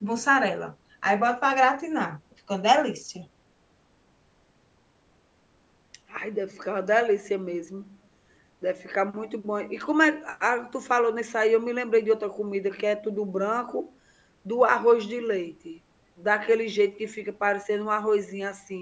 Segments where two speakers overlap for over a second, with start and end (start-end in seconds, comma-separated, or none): none